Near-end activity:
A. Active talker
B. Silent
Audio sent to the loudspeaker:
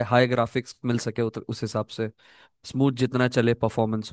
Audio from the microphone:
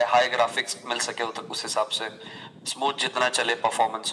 B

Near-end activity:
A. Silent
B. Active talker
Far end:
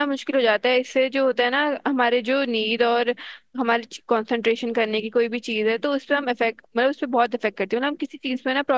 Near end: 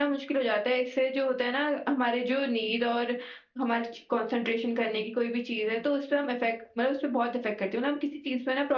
A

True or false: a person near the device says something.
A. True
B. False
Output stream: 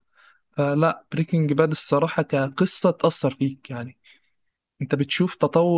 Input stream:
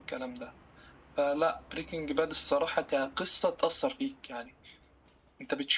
B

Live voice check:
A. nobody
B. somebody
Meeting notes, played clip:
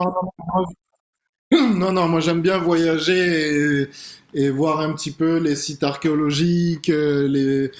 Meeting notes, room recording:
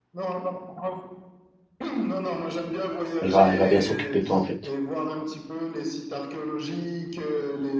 B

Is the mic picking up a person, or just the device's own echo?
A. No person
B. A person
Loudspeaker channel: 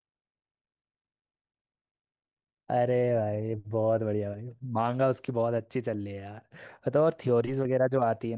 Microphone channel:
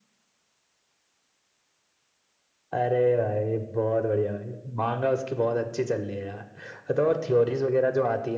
A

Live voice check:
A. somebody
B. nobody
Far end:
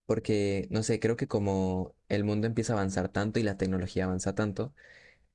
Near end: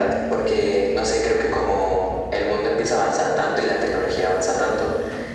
B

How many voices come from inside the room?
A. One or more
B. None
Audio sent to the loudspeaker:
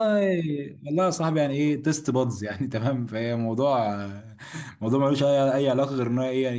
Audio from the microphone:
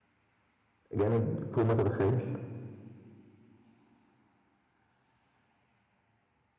A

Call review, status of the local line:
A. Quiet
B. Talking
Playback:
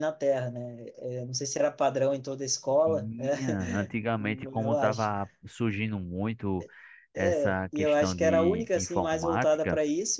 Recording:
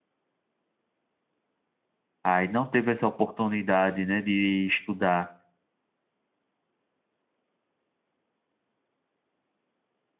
B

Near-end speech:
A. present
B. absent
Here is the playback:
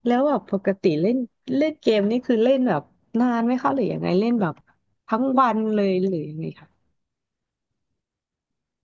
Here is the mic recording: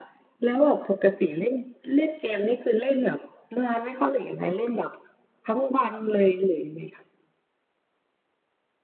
B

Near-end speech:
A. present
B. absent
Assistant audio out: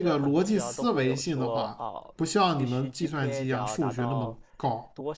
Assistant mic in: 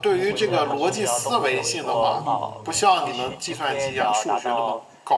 A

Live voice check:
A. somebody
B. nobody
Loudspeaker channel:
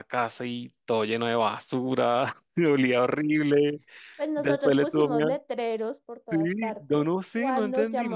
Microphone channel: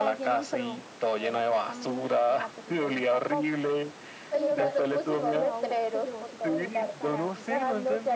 A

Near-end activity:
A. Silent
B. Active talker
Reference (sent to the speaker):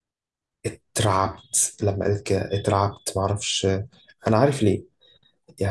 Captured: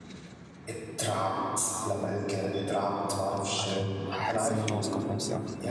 B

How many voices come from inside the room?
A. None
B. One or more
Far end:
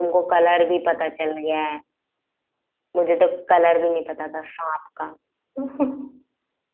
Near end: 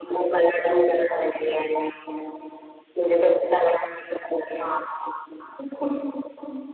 A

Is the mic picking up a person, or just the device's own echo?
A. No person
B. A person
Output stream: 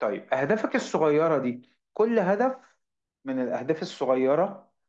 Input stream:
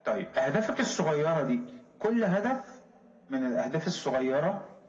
A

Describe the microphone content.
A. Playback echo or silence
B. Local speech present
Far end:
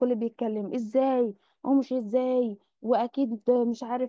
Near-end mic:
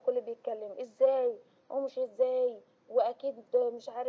A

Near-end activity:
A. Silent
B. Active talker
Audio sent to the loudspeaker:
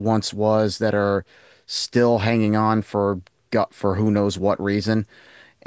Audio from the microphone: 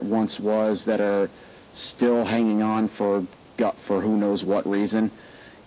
A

